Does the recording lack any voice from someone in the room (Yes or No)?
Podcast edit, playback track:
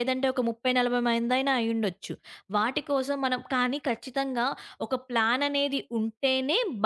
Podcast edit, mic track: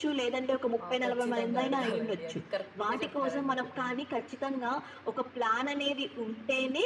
No